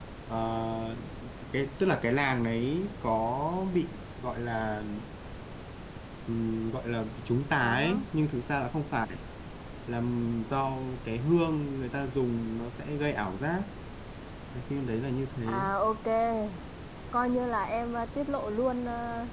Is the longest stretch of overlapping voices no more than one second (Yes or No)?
Yes